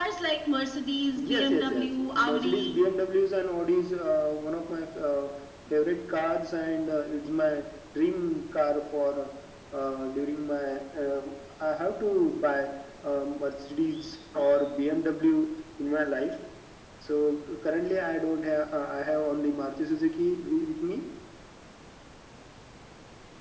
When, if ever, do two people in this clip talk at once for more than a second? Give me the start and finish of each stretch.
1.3-2.8

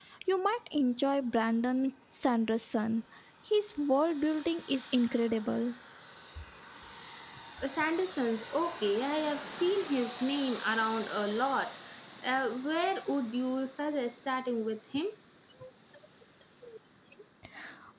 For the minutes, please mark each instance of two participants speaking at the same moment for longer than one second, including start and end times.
none

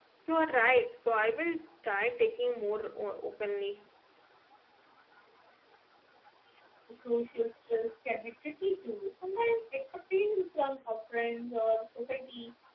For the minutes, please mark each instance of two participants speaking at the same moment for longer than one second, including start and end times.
none

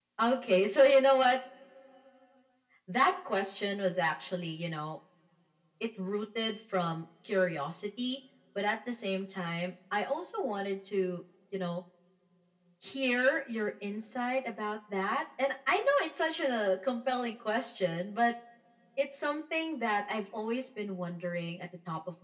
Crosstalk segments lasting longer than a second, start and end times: none

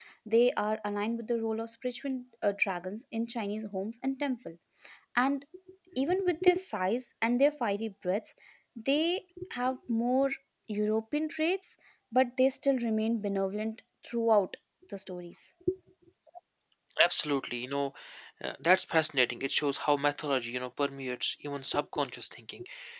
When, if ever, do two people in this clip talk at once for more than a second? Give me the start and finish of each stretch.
none

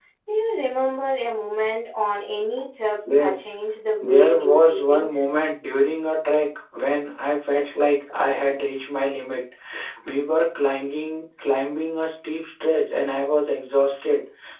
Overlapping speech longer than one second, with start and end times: 4.0-5.2

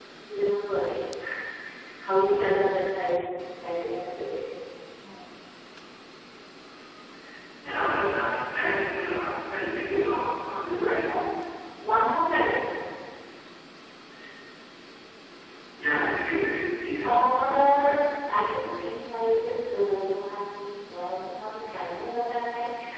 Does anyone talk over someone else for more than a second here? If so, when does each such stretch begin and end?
17.0-18.4

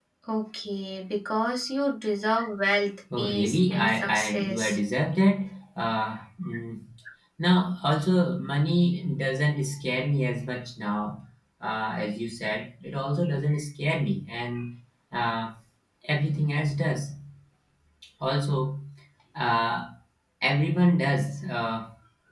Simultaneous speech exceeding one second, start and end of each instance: 3.2-4.8

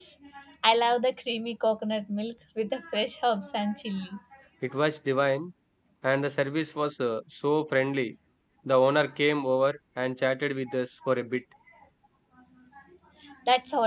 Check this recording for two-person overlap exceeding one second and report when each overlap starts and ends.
none

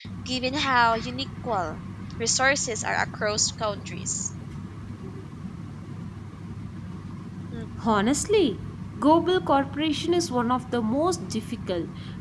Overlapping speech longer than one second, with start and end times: none

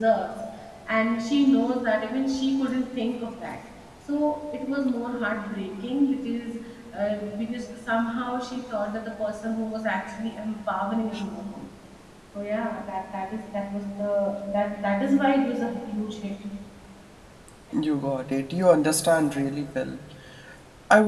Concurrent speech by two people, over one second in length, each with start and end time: none

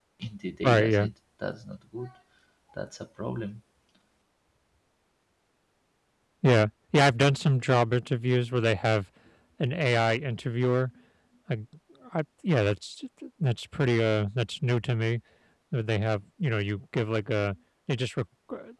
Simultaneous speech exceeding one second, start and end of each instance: none

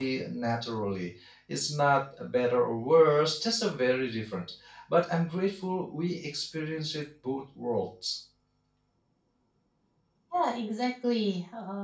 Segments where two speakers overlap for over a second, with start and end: none

